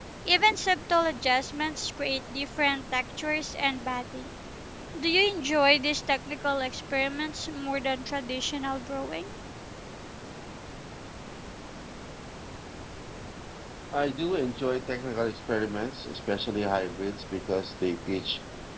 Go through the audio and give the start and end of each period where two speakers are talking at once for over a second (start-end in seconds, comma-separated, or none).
none